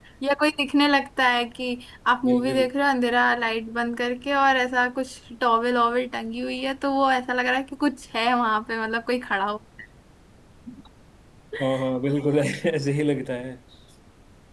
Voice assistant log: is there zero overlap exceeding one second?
Yes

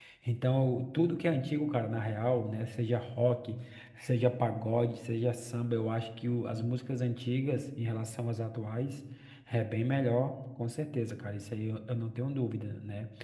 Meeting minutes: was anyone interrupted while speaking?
No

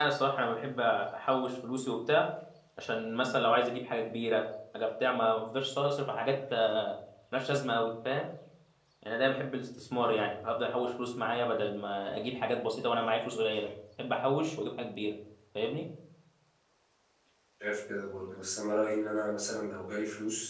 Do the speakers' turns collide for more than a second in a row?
No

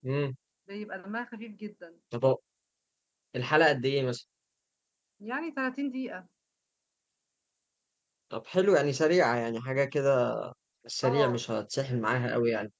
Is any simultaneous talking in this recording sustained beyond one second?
No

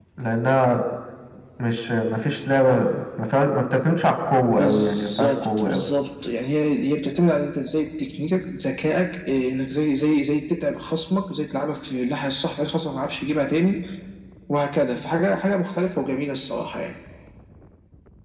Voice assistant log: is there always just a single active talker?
No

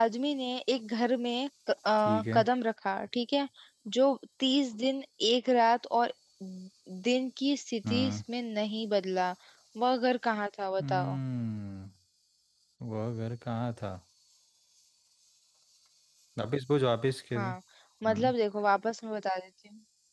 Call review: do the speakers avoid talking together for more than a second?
Yes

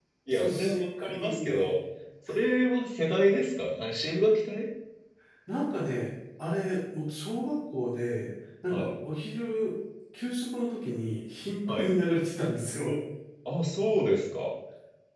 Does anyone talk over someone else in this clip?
Yes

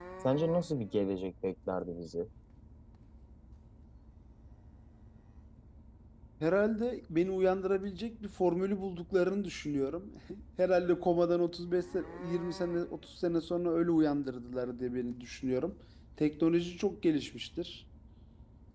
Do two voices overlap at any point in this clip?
No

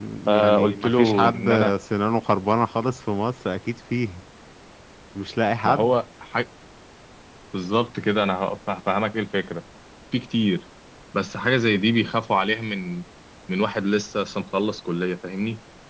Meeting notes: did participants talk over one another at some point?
Yes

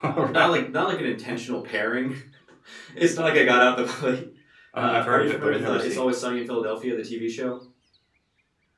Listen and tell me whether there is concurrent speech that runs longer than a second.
Yes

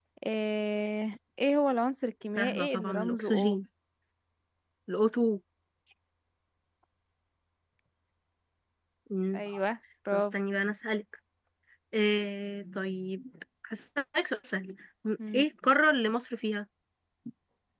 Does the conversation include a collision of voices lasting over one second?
Yes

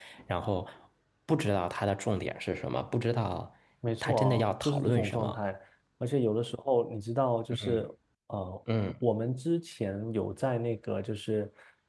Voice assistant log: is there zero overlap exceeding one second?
No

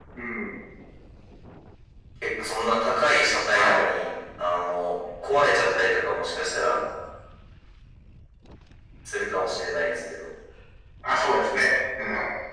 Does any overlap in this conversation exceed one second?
No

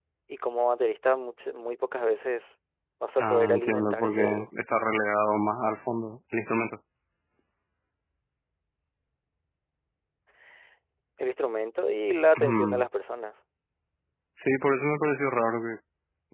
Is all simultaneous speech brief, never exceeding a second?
No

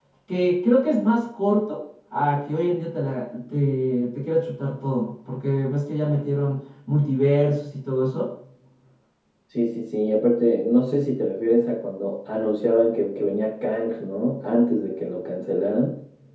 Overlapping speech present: No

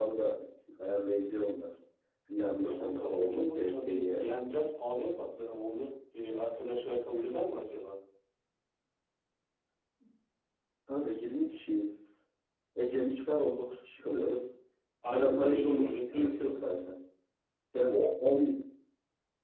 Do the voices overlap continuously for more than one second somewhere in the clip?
Yes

